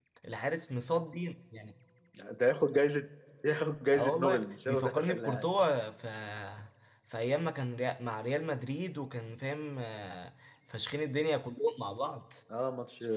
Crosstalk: present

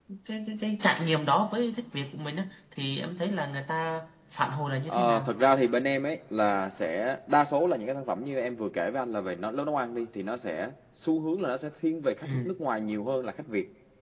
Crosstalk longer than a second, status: none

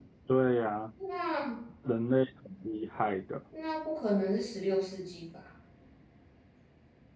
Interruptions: none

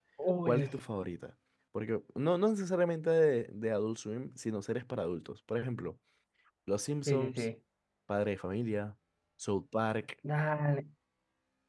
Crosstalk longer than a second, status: none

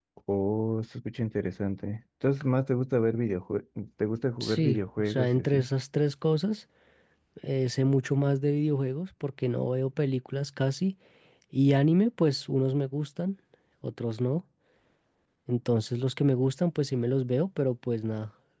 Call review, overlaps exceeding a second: present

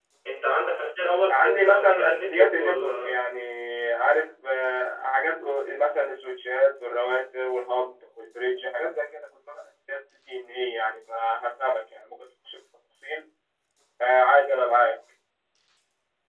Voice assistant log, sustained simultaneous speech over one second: present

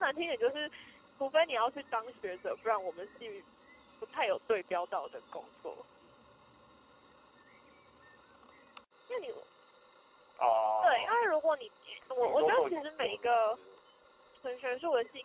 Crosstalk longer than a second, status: present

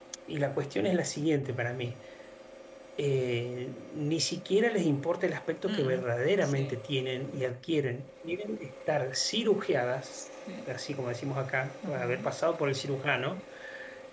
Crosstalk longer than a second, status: none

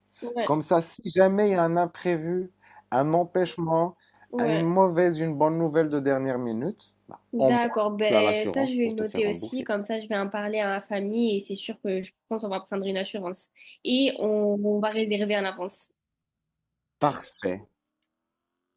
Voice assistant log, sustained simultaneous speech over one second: present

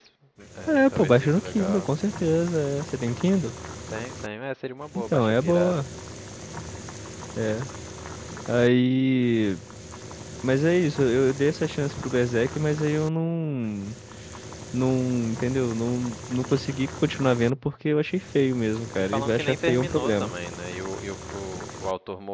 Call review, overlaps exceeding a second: present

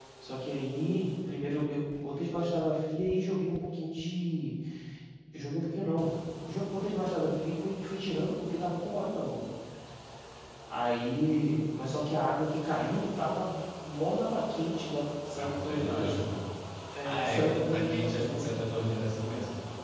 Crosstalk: present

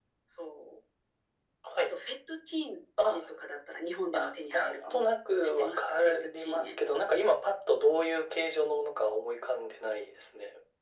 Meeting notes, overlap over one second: present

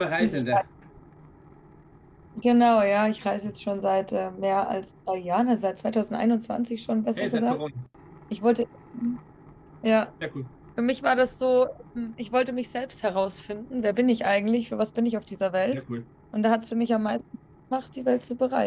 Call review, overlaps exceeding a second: none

